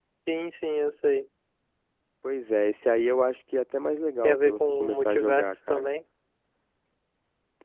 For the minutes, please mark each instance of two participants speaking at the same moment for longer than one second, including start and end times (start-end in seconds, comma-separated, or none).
4.2-5.9